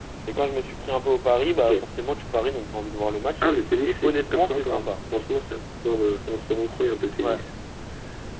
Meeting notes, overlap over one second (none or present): present